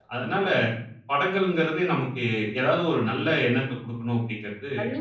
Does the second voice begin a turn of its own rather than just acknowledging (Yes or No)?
Yes